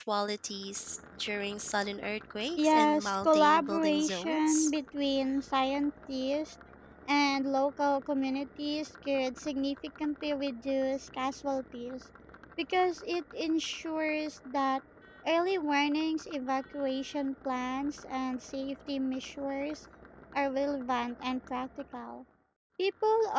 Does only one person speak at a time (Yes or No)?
No